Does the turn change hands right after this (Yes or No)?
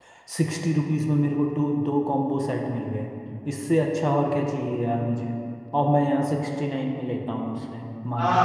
Yes